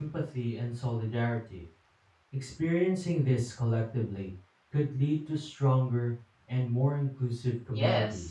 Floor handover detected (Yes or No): Yes